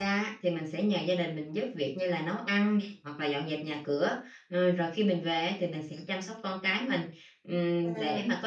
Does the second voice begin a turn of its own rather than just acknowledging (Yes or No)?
No